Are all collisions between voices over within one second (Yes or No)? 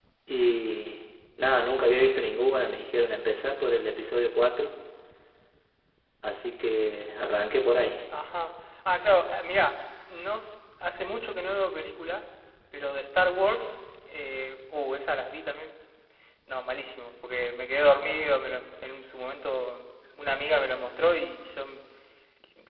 Yes